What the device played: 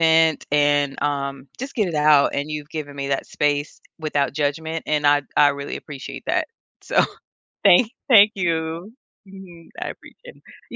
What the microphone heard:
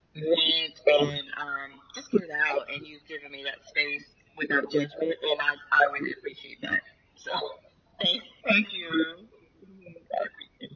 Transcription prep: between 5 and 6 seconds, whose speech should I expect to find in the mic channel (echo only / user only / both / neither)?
echo only